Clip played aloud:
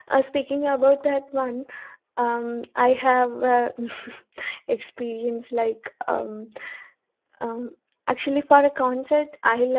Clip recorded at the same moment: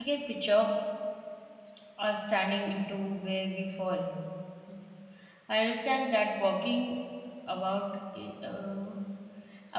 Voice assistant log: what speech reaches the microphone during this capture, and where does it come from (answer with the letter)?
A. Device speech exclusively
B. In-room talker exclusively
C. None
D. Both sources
B